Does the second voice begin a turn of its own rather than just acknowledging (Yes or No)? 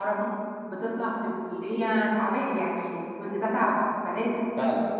No